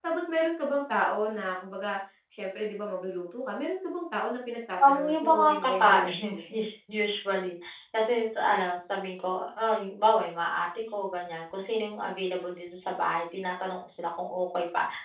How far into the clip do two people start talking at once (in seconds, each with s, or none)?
4.8 s